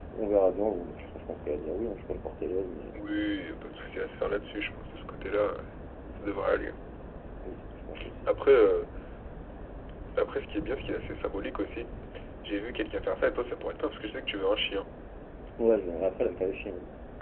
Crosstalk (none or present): none